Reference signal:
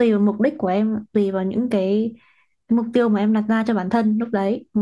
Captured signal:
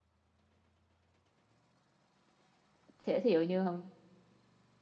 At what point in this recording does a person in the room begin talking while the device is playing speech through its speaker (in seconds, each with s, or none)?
3.0 s